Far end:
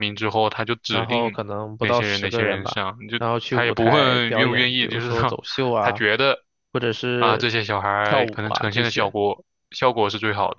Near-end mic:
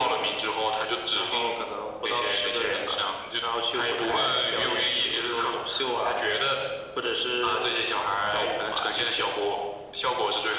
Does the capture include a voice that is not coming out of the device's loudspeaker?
No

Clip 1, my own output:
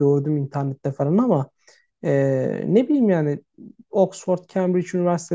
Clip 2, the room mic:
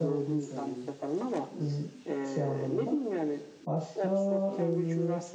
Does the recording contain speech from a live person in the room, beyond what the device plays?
Yes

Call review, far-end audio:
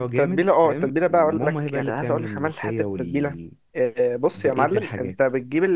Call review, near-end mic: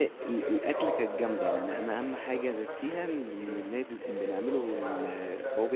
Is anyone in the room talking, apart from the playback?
Yes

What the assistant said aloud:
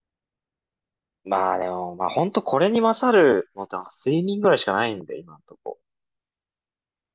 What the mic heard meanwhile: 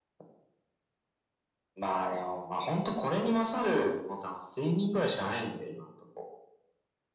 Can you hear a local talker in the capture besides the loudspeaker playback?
No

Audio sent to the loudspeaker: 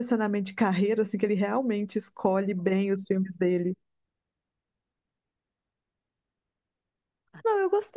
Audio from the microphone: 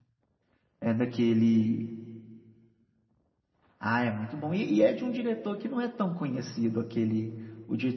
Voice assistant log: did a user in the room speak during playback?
Yes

